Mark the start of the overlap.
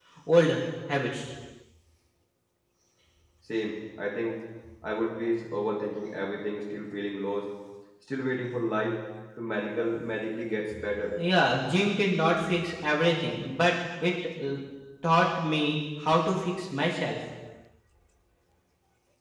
none

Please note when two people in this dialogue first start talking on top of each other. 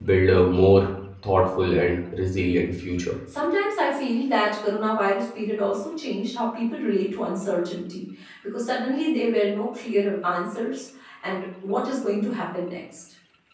none

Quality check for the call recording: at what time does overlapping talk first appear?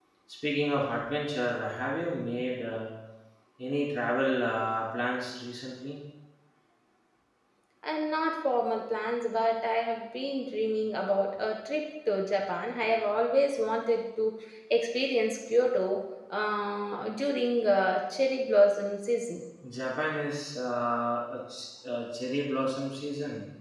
none

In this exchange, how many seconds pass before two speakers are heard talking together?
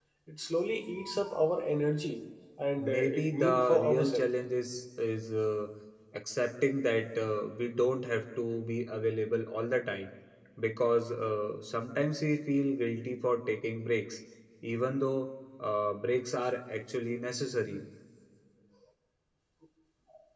3 s

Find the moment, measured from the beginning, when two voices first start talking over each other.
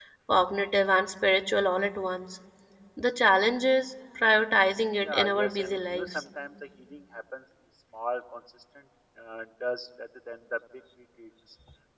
5 s

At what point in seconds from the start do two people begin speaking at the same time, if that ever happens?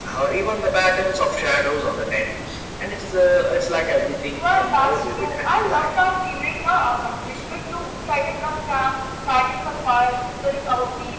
4 s

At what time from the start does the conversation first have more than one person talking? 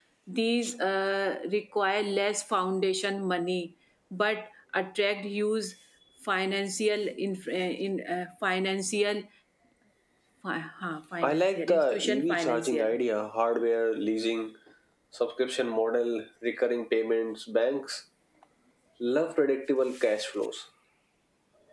11 s

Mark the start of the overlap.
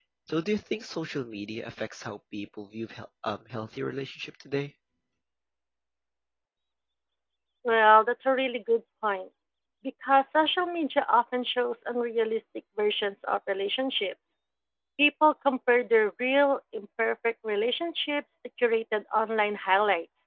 none

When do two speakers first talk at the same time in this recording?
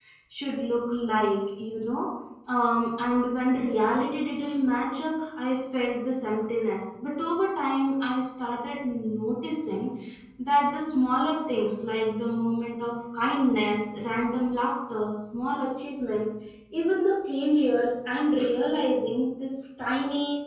none

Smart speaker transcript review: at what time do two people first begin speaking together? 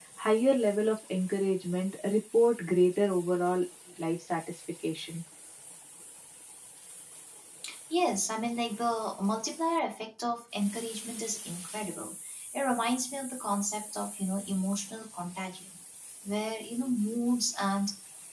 none

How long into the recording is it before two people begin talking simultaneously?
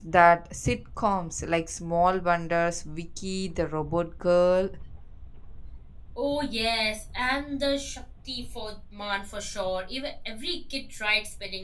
none

